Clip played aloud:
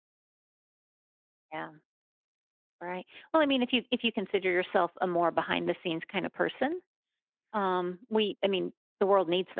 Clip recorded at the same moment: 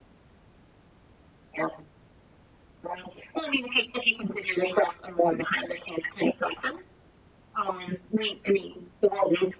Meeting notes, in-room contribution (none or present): none